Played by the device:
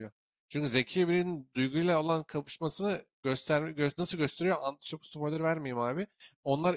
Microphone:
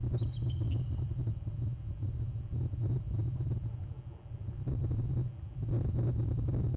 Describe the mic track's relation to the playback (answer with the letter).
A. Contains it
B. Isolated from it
B